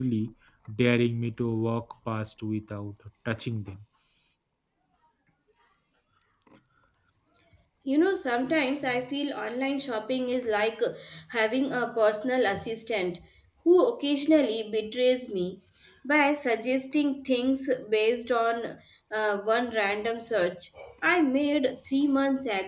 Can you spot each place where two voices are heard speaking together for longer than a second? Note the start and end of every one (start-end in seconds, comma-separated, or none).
none